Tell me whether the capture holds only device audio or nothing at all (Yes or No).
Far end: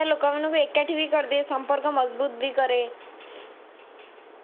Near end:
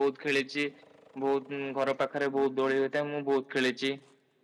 No